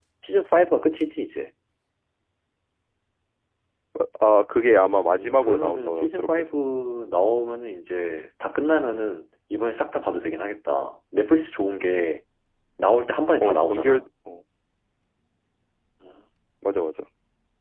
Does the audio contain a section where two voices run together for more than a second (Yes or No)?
Yes